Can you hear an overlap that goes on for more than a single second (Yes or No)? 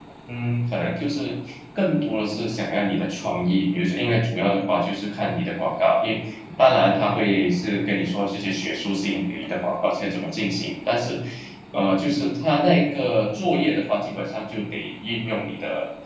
No